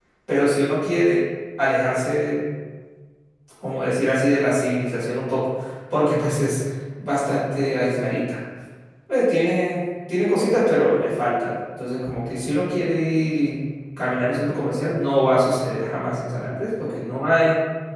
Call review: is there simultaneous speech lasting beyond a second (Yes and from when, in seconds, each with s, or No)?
No